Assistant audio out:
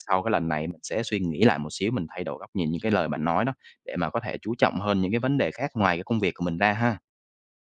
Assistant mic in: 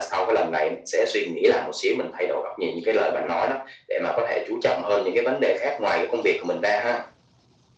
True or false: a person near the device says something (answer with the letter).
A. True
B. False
B